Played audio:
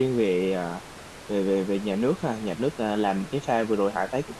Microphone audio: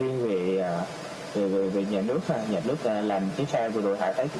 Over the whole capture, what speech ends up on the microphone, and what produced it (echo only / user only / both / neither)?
echo only